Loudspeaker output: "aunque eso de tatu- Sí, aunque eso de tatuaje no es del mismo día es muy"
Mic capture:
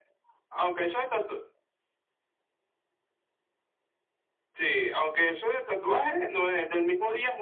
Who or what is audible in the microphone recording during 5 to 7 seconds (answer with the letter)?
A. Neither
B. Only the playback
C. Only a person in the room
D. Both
B